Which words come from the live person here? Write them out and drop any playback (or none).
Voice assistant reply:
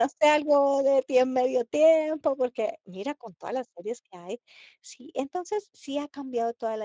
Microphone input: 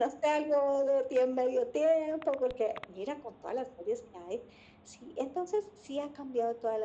none